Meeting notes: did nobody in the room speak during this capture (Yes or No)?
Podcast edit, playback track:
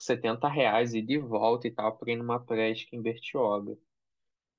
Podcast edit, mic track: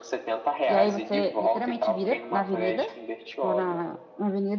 No